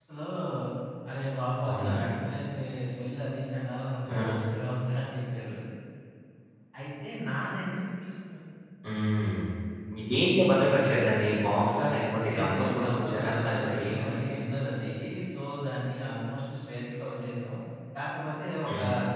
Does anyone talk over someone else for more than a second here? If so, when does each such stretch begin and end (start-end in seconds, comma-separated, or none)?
12.3-14.3